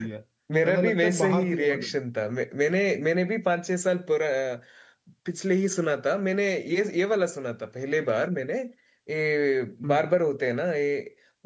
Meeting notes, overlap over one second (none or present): present